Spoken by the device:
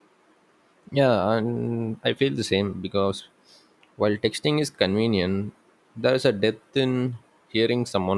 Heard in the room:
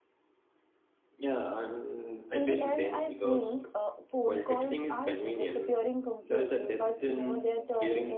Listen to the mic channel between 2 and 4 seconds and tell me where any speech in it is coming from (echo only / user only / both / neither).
both